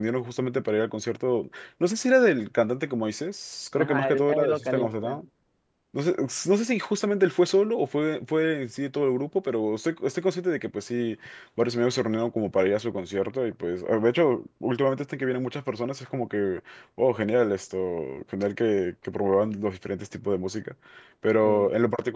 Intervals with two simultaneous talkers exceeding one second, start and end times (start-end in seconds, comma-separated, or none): 3.8-5.2